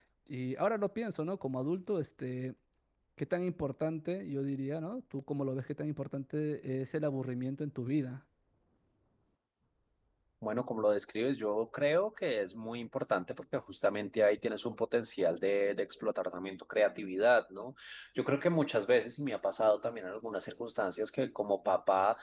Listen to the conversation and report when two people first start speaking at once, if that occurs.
none

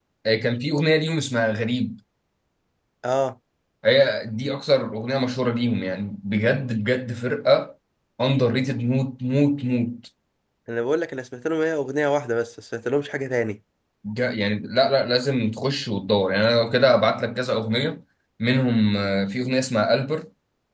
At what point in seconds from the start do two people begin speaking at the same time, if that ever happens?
none

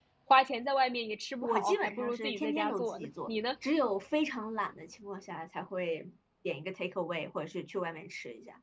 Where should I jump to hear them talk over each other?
1.4 s

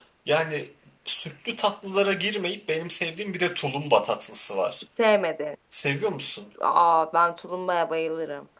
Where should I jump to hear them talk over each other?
none

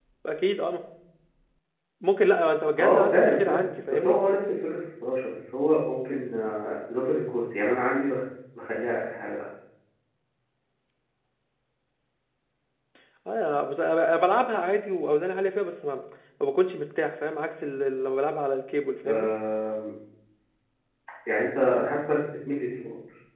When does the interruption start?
2.8 s

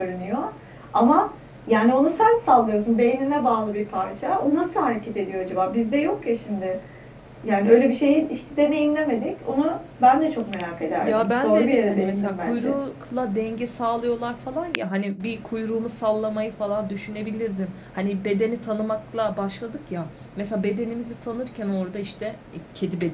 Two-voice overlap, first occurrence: 11.0 s

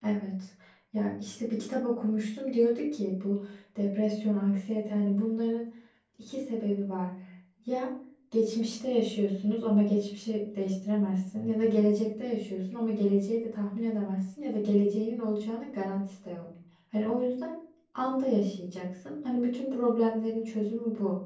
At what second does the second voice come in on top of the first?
none

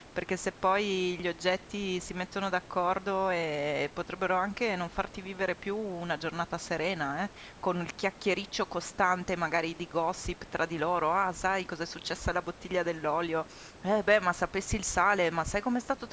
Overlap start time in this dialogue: none

